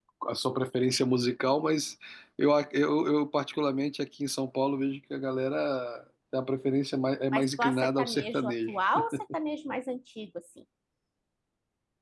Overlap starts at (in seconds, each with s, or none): 7.3 s